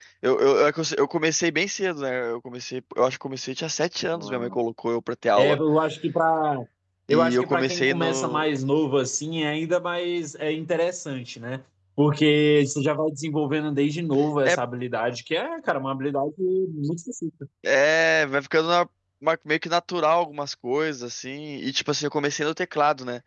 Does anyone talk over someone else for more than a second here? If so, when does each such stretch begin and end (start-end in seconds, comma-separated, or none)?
7.1-8.4